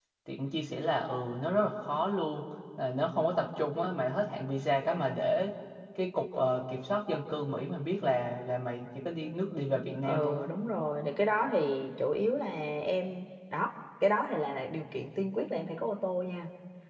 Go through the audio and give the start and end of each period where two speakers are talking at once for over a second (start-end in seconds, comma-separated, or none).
none